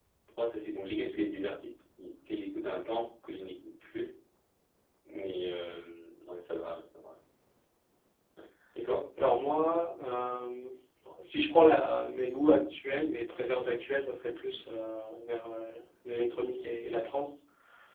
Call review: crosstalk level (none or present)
none